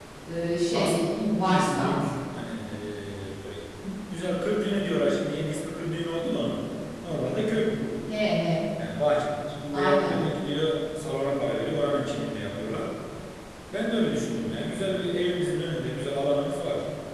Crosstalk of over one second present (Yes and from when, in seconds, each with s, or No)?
Yes, from 0.7 s